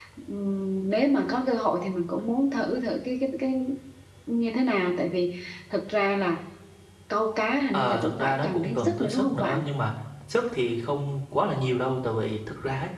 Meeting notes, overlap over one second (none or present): present